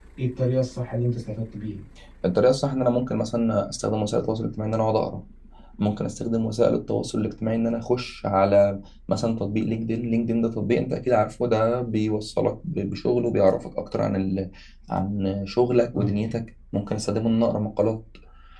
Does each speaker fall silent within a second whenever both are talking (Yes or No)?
Yes